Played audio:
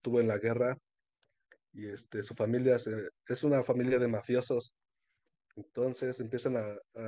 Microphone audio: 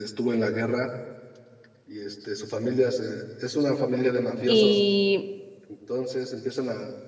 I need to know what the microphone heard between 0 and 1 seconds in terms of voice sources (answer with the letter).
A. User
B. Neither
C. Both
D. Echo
D